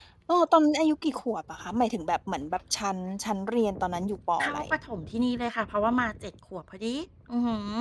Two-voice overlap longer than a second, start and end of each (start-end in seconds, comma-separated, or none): none